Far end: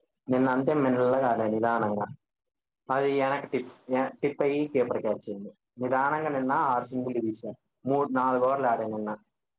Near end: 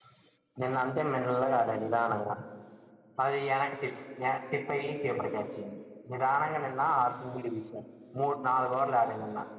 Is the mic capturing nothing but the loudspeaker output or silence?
Yes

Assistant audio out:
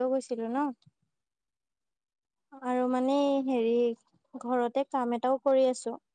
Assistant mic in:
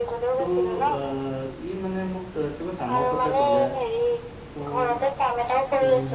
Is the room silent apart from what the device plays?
No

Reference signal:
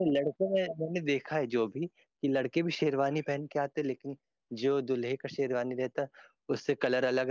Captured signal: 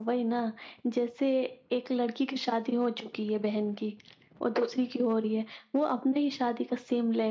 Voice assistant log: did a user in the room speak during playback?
Yes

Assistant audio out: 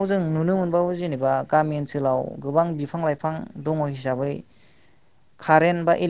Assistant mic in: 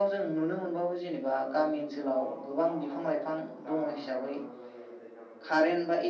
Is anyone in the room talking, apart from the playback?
Yes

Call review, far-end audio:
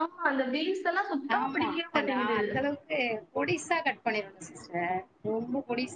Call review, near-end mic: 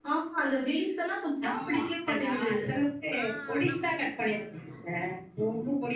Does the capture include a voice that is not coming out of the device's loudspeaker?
Yes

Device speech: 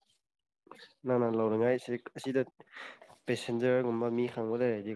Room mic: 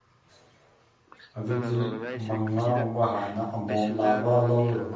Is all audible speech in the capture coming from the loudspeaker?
No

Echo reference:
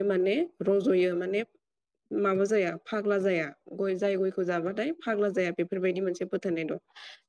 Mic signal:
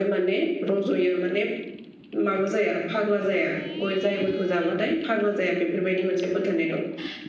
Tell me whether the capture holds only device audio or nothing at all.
Yes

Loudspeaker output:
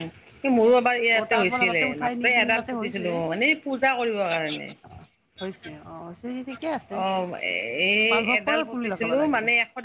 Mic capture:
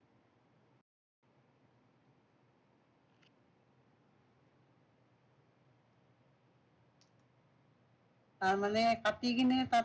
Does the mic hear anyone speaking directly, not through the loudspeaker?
Yes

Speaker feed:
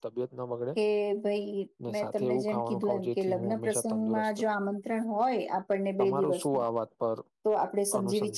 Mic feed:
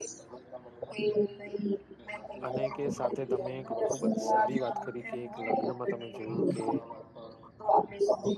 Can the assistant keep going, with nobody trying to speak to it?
No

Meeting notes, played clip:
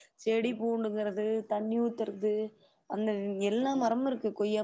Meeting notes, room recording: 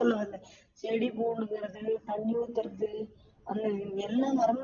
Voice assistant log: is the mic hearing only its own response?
Yes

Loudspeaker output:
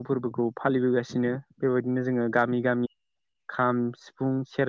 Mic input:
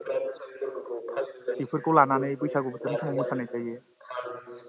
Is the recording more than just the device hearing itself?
Yes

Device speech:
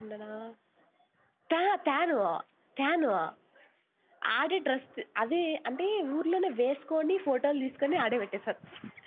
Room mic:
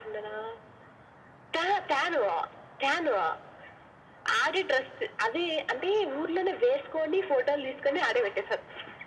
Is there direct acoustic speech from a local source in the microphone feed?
No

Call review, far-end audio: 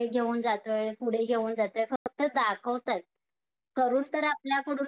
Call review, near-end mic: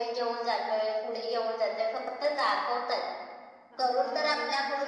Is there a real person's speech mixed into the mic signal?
Yes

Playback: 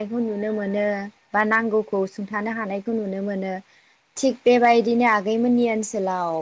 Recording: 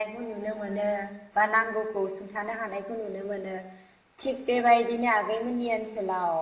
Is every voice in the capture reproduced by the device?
Yes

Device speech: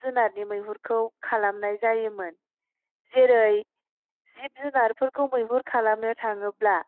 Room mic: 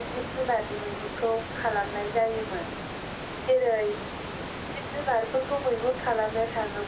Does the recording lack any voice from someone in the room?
Yes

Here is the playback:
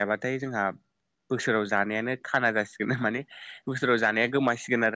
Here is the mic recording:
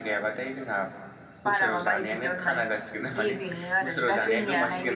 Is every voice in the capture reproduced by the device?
No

